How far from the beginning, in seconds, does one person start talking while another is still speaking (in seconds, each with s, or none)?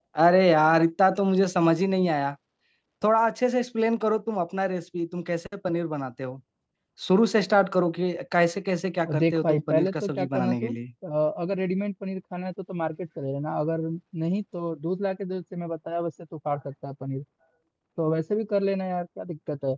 9.1 s